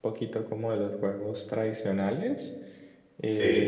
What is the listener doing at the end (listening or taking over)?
listening